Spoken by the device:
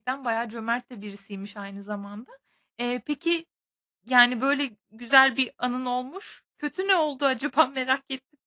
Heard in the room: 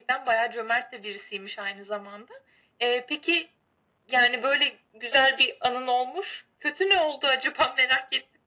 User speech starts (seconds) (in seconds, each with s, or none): none